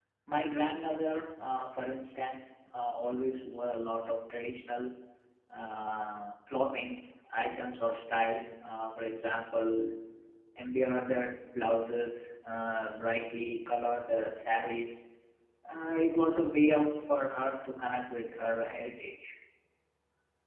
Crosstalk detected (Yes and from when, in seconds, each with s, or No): No